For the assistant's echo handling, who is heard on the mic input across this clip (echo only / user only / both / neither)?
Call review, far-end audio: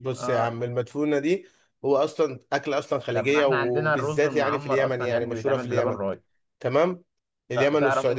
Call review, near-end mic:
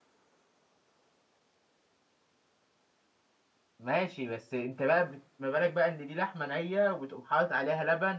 user only